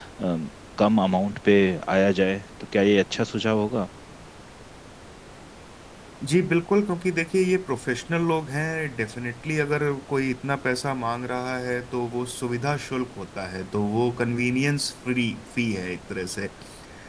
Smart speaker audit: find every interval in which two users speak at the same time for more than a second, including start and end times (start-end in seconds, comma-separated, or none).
none